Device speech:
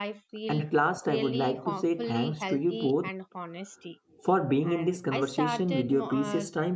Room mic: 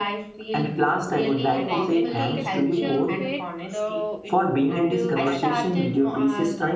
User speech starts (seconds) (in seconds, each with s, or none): 1.5 s